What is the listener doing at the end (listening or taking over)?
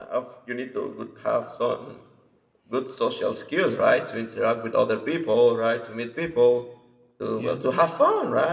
listening